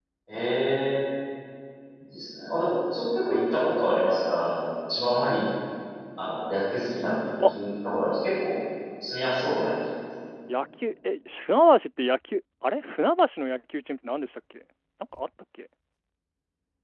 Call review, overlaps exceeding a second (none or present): none